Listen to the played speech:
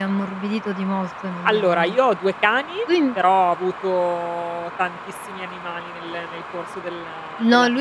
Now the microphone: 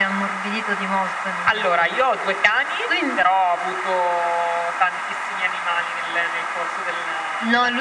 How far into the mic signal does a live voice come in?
none

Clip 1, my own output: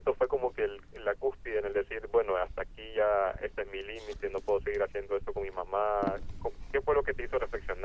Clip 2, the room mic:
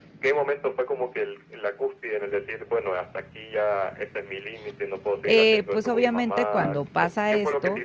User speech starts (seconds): 5.2 s

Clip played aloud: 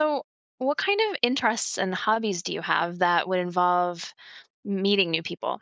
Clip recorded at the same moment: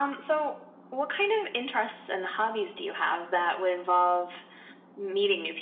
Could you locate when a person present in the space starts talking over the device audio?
none

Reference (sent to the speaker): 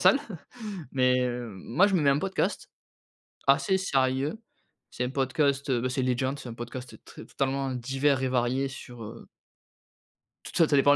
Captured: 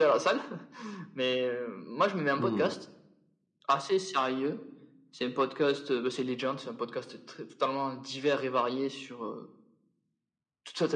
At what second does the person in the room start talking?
2.4 s

